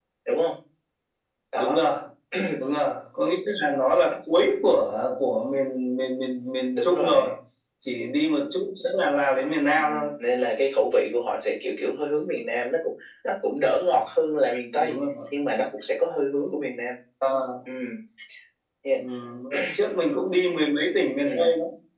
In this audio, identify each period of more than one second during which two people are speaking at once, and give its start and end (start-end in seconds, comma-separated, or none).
none